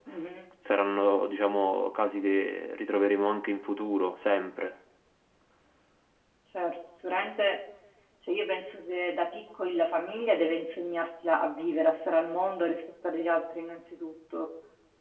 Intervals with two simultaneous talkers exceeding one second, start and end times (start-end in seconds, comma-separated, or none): none